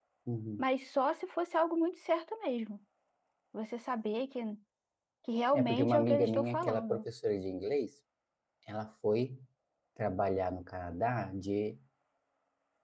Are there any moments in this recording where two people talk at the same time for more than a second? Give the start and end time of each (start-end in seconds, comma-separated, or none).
5.5-7.0